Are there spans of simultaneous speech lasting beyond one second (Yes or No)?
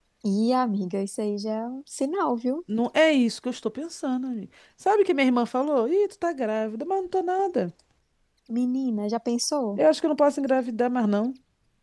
No